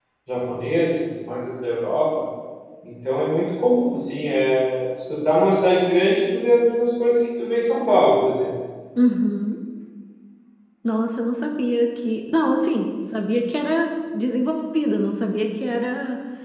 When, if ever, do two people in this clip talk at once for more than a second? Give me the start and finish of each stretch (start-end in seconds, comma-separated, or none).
none